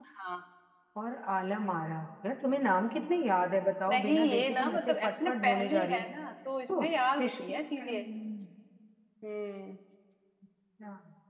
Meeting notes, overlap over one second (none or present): present